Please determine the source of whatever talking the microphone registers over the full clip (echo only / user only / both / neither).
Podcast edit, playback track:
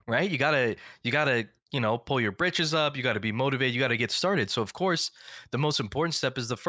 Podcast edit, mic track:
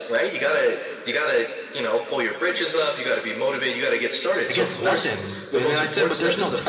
both